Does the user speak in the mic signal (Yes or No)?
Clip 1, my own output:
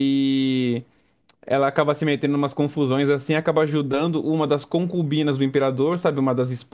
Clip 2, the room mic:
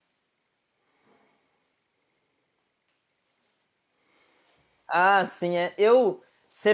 Yes